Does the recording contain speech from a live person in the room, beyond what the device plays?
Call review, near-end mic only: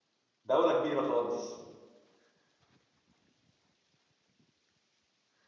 Yes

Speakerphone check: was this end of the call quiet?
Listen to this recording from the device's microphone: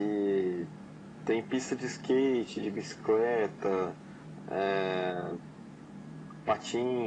Yes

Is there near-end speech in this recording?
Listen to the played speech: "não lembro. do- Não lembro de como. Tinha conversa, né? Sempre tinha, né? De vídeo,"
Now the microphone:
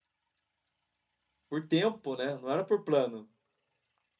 Yes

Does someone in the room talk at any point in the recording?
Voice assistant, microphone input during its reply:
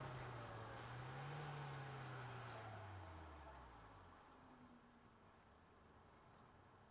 No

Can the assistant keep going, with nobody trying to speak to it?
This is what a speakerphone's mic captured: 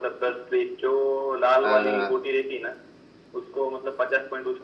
No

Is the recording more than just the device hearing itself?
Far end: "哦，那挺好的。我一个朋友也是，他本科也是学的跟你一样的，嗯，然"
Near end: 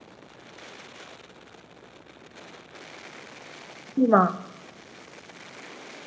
Yes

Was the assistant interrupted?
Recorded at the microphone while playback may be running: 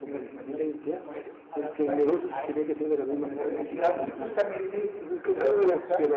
Yes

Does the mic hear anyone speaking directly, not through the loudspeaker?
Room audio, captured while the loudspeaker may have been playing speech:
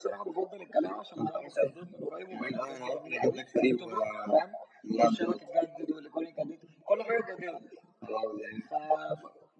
No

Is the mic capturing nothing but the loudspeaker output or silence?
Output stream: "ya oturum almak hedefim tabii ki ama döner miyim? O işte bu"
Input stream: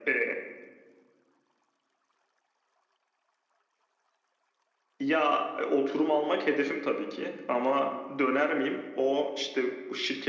Yes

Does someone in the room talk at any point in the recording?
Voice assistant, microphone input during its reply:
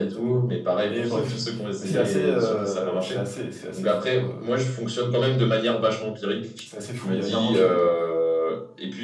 No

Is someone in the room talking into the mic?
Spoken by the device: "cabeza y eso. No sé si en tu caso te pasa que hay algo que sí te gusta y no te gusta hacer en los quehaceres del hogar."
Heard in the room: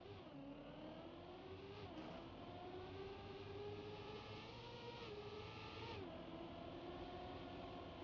No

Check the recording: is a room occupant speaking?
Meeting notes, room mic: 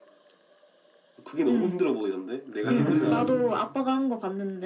Yes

